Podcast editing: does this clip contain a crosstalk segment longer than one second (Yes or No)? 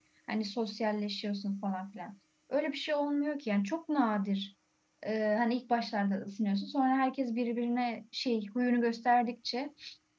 No